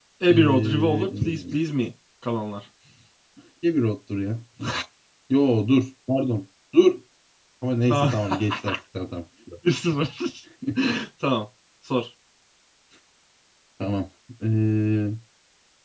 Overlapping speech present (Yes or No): Yes